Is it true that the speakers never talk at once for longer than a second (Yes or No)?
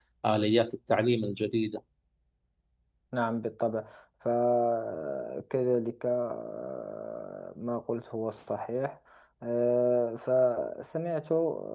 Yes